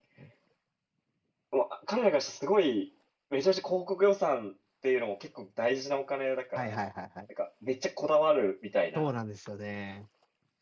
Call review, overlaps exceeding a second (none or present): none